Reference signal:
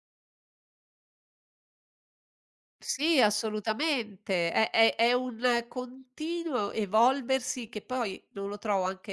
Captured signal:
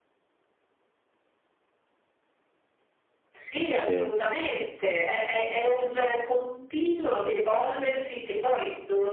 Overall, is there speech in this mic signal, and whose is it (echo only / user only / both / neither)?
both